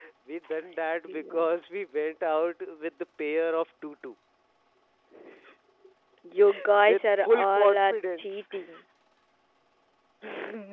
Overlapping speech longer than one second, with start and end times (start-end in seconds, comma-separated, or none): 6.9-8.8